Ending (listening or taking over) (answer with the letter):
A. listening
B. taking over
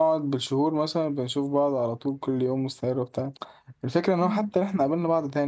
A